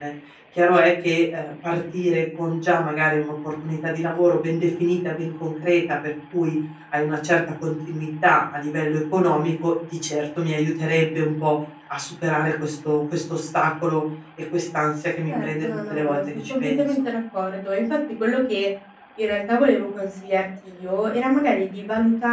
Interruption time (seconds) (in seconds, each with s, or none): 15.3 s